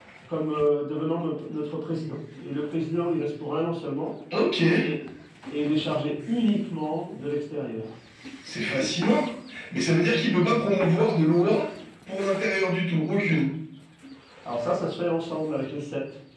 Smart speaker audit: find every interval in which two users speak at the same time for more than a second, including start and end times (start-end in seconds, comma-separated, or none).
none